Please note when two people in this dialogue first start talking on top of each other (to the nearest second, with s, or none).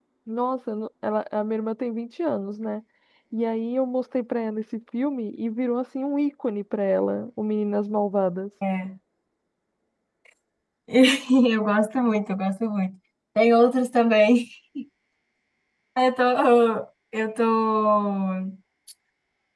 none